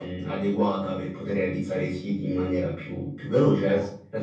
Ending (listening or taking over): taking over